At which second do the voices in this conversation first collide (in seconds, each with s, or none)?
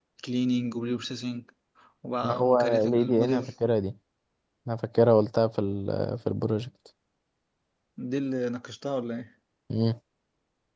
2.2 s